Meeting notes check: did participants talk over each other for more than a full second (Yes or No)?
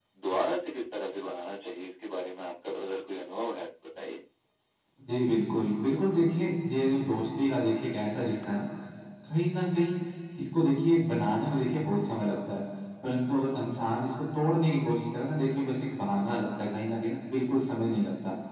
No